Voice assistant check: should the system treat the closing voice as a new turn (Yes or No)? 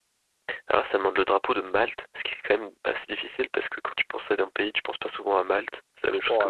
Yes